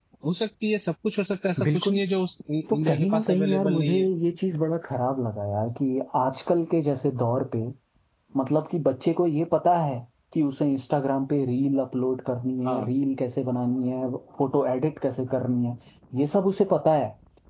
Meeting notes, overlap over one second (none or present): present